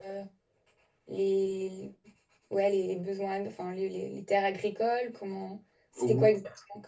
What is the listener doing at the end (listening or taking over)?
taking over